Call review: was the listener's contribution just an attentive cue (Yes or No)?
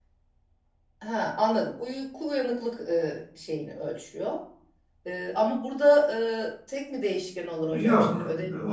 No